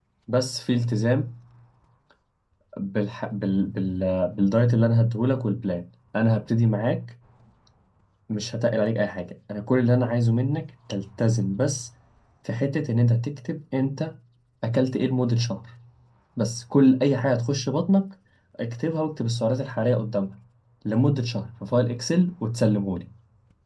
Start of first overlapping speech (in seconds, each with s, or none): none